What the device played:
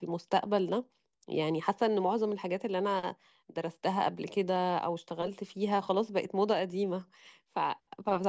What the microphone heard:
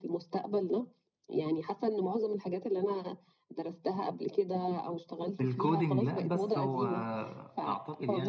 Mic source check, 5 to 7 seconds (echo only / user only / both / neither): both